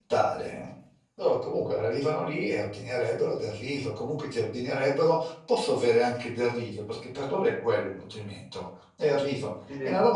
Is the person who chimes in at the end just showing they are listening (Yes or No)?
Yes